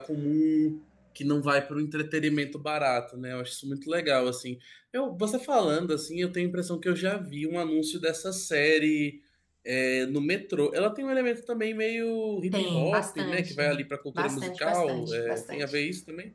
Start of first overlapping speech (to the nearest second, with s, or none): 13 s